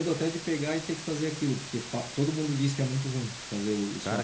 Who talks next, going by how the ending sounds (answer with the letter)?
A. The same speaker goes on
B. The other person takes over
B